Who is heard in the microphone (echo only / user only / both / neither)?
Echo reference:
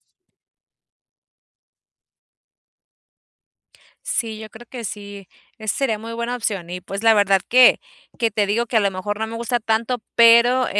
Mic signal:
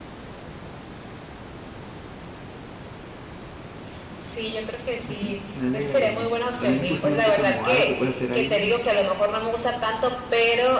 both